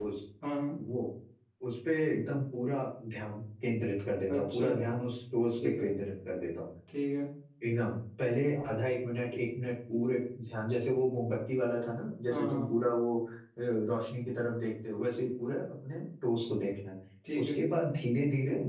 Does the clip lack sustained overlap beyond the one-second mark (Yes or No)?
Yes